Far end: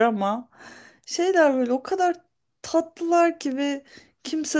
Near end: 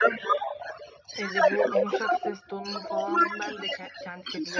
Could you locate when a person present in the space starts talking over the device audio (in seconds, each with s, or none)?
1.2 s